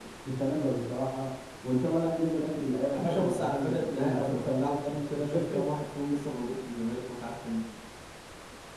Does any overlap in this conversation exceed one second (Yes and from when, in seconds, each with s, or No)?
Yes, from 2.9 s